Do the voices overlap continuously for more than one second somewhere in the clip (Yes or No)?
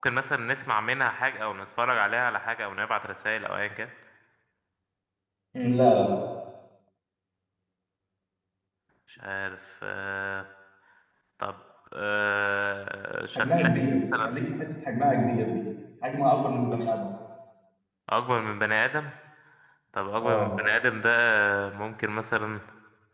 No